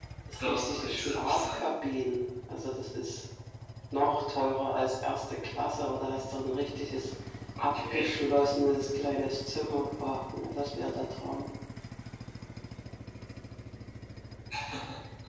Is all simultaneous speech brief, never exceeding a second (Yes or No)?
No